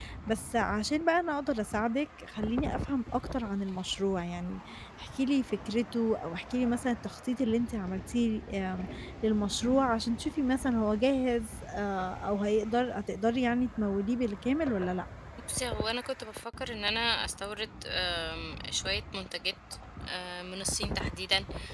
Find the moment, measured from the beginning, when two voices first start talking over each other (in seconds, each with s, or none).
none